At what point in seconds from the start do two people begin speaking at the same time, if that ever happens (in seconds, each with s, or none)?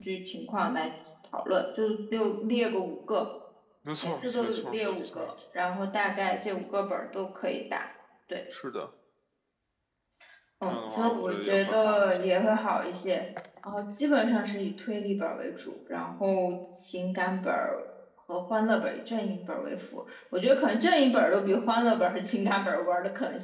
4.0 s